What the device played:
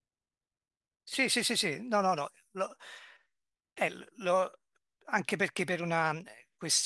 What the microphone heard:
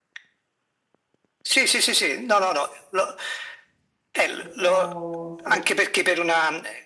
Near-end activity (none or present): present